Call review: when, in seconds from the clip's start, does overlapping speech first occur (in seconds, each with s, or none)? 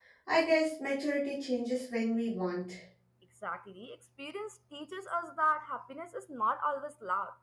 none